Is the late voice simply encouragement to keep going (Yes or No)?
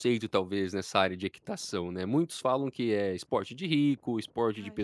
Yes